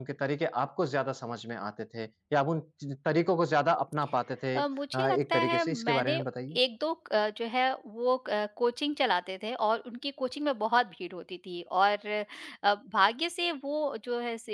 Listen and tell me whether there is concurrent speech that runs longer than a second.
Yes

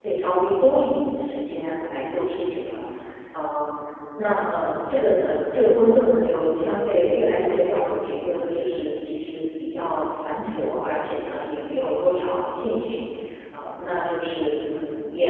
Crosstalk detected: No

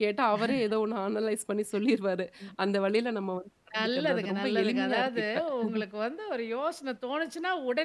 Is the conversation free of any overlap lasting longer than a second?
No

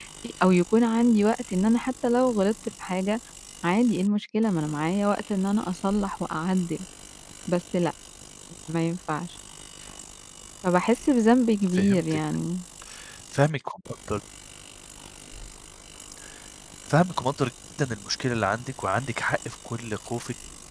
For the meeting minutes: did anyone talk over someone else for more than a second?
No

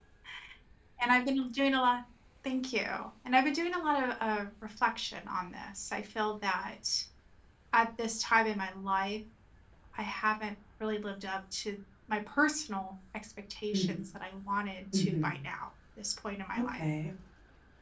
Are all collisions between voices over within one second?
Yes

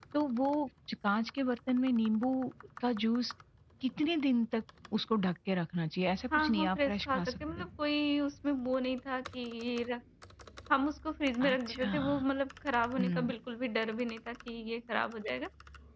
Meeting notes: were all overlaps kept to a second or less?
No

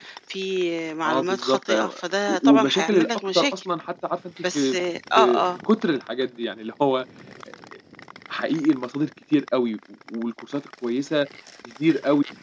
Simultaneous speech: Yes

